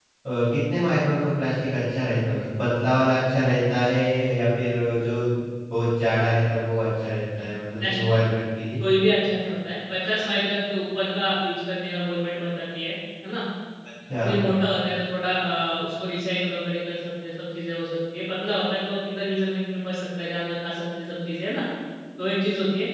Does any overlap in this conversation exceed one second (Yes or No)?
No